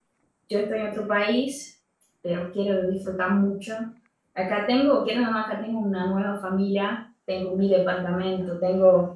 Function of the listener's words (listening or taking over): listening